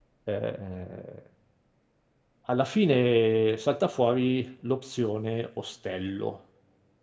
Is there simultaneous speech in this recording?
No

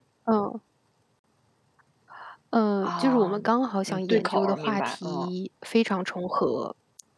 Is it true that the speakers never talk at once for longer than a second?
No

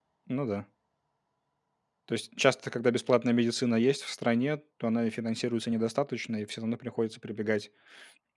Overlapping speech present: No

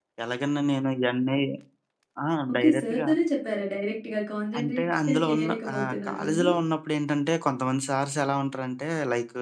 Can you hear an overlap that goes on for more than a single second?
Yes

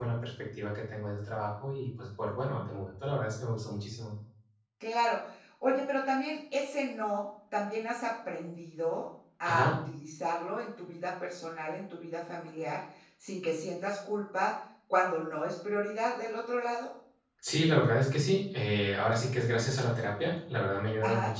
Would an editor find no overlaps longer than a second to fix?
Yes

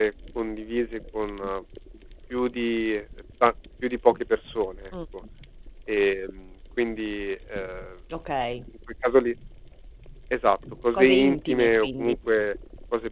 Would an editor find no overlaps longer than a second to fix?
No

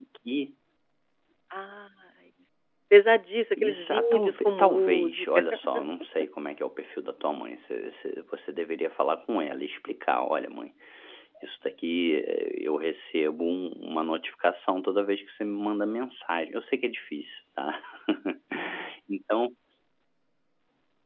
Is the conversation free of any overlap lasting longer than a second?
No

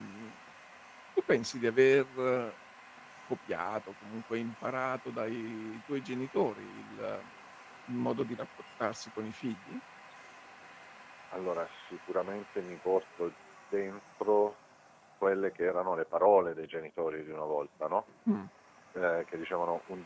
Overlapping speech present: No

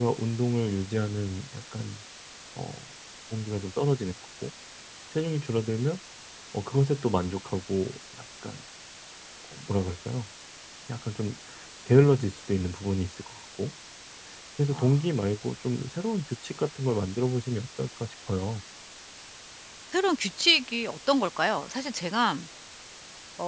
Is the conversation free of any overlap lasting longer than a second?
Yes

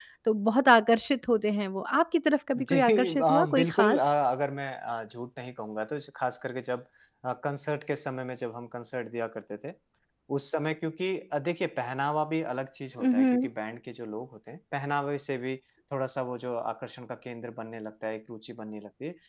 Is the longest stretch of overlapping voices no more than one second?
No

